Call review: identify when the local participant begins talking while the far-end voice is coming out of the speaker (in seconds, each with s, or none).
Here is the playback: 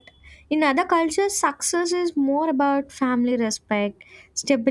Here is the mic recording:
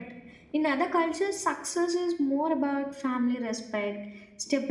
none